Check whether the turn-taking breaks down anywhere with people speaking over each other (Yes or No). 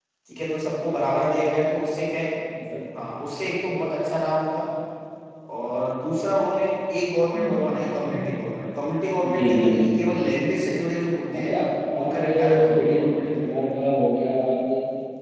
Yes